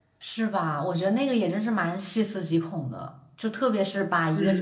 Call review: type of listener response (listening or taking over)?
listening